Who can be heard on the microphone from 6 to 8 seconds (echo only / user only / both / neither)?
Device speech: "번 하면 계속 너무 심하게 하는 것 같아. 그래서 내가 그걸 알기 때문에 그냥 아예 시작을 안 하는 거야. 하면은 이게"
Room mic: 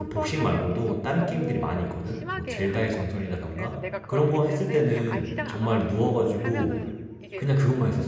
both